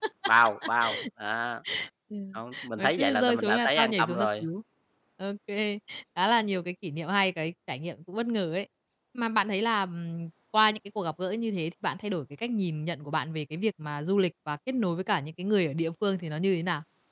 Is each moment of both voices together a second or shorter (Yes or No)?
No